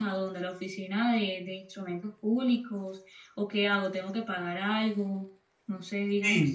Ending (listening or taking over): taking over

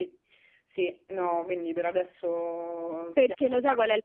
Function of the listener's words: taking over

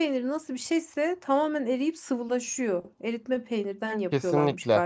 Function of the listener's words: taking over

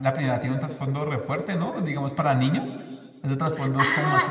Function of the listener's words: taking over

